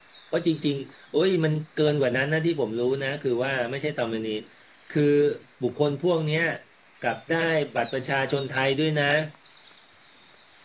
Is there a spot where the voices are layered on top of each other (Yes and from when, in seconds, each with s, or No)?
No